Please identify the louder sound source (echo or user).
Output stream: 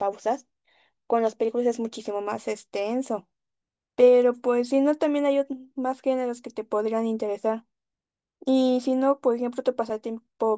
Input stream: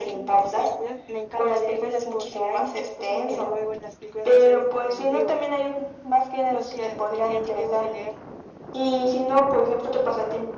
echo